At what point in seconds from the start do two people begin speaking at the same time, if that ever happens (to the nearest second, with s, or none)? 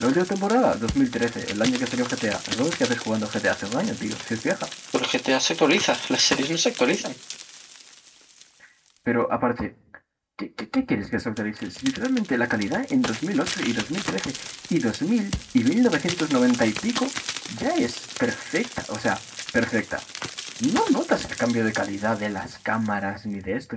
none